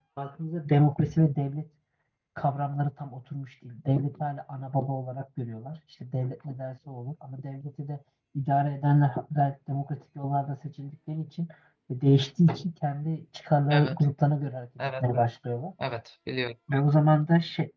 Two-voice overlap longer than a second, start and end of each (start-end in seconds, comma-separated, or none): none